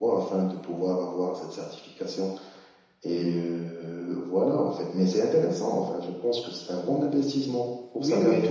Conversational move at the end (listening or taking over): taking over